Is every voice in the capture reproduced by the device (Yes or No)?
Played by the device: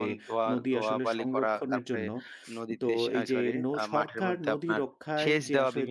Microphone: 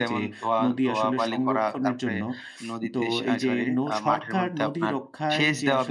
Yes